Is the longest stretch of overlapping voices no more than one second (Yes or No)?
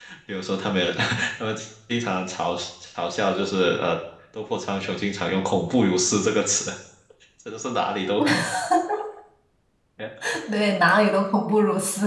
Yes